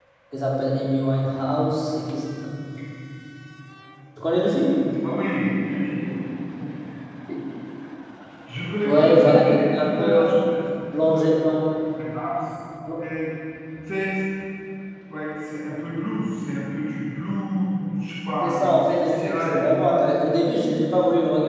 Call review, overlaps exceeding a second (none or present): present